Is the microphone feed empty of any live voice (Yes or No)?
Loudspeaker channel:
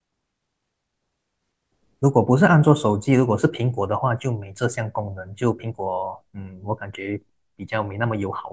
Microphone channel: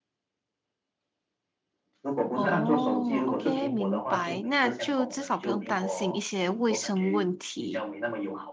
No